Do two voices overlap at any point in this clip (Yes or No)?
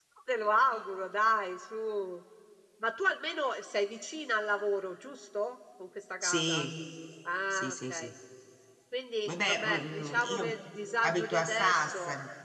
Yes